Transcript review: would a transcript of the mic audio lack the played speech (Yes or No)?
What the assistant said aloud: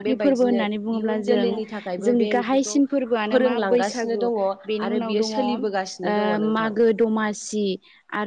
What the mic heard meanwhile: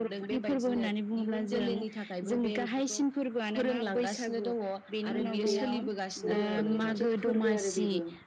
No